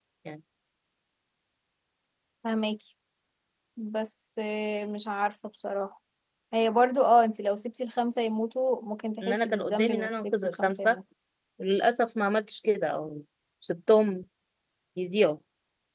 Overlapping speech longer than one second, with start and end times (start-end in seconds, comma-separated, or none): 9.2-11.0